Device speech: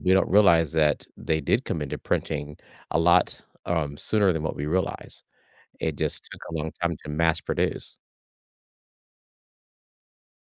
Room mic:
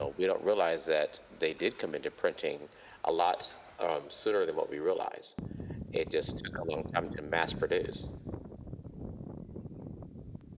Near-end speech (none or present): none